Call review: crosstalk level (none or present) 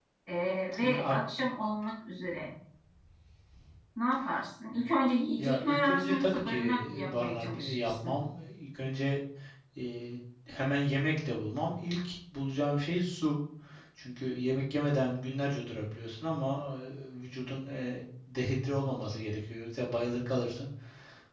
present